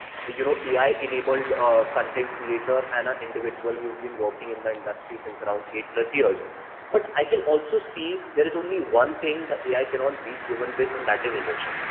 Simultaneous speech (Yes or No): No